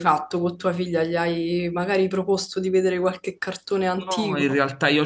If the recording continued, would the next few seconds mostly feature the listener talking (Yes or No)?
Yes